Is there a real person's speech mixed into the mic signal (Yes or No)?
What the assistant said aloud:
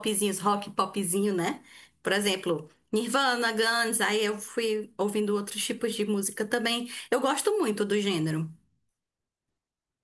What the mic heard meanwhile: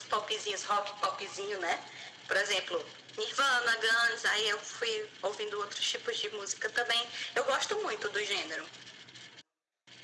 No